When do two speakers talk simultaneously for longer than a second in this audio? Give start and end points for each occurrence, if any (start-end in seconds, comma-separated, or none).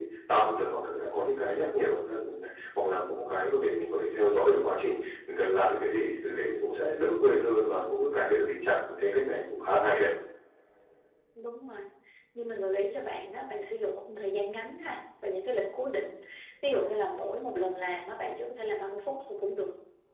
none